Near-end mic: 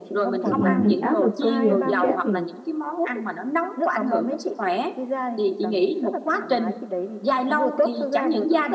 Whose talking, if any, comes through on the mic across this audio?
both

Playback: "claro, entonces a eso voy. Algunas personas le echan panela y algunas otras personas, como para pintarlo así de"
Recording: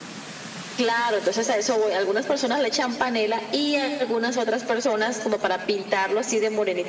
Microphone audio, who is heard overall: echo only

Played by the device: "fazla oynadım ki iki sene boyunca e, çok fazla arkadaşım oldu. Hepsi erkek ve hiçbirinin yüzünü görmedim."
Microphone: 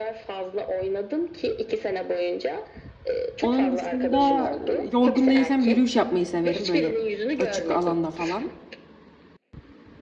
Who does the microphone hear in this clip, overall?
both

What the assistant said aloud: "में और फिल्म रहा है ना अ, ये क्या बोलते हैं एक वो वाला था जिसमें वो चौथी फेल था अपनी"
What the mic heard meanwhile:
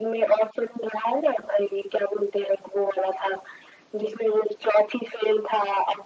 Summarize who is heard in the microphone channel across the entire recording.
echo only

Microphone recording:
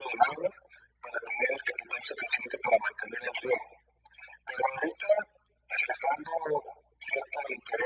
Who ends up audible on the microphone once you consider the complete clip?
echo only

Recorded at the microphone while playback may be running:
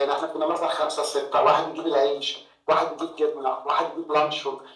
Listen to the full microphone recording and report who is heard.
echo only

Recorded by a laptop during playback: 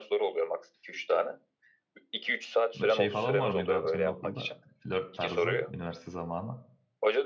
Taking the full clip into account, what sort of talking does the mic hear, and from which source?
both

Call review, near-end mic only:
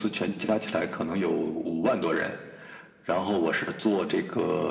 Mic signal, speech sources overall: echo only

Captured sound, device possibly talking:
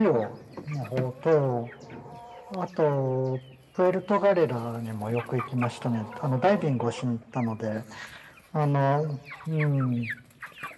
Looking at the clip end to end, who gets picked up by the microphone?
echo only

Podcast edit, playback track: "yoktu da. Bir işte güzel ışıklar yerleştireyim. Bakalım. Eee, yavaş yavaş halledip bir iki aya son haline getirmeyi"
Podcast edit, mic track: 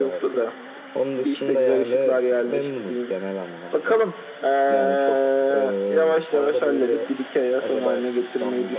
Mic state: both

